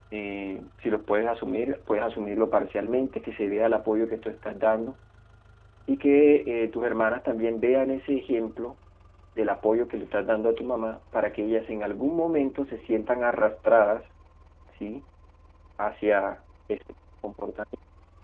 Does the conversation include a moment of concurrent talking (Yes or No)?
No